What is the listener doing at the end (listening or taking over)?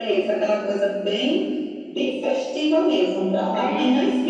taking over